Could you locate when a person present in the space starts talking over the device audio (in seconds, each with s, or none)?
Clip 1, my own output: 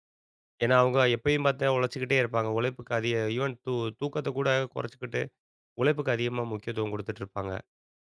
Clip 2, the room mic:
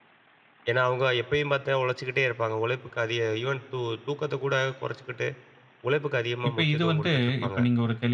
6.5 s